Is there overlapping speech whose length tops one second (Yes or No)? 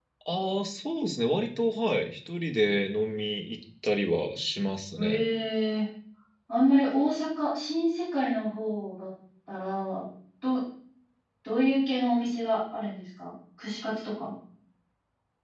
No